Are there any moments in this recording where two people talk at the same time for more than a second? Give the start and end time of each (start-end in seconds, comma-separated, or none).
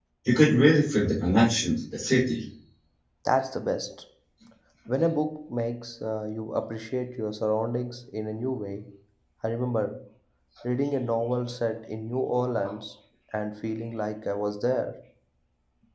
none